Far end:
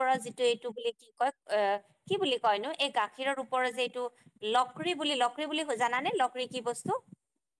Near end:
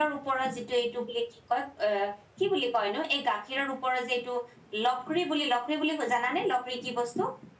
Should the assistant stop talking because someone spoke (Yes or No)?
No